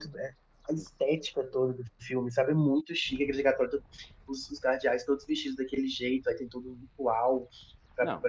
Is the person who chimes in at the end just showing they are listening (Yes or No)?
Yes